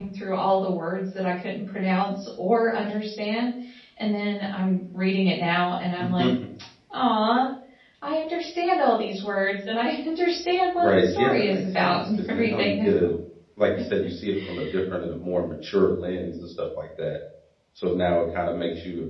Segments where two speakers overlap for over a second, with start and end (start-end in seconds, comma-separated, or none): 10.8-12.9